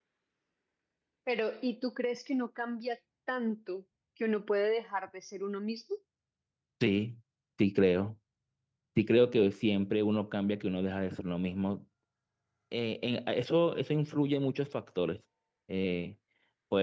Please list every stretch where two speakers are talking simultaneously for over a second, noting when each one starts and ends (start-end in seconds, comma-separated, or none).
none